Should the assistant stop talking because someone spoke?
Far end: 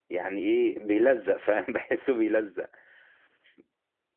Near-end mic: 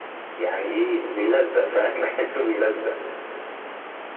No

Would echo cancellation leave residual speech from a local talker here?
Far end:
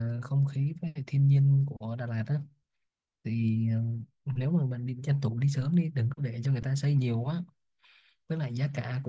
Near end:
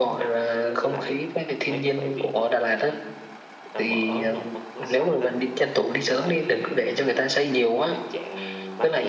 Yes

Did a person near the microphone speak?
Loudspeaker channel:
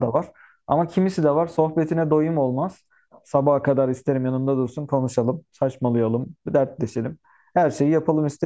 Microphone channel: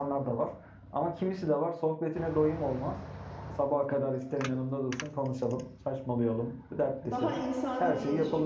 Yes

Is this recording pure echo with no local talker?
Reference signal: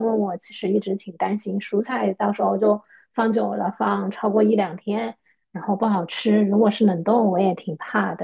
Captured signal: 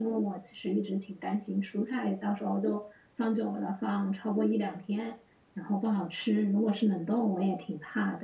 Yes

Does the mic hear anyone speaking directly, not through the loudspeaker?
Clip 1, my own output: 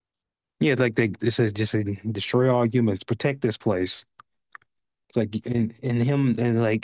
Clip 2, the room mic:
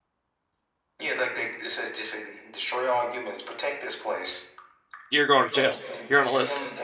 Yes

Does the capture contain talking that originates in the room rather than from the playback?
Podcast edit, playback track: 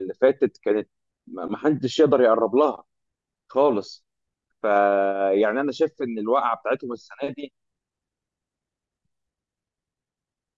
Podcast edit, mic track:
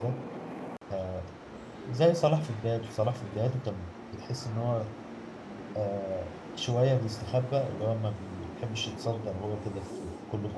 Yes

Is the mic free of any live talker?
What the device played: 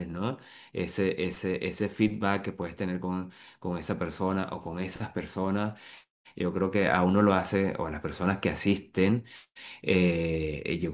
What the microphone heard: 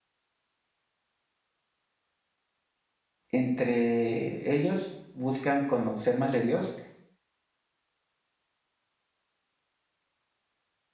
No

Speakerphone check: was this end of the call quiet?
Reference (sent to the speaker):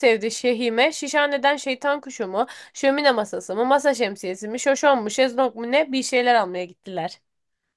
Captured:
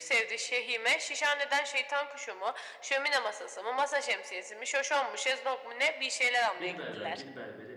No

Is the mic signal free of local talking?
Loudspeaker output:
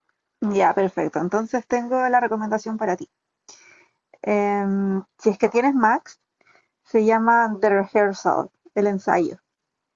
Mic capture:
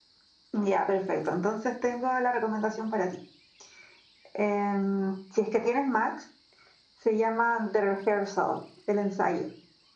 Yes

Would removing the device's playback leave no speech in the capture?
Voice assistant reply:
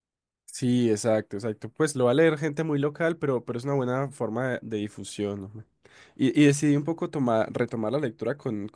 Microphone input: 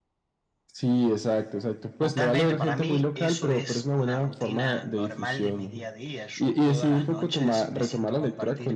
No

